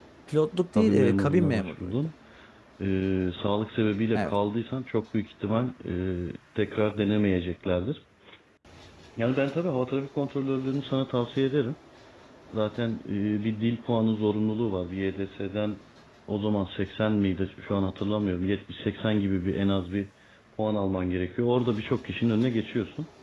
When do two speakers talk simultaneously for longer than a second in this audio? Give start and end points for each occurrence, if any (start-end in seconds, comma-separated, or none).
0.8-2.0